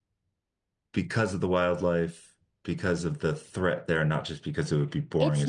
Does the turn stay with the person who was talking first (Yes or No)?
No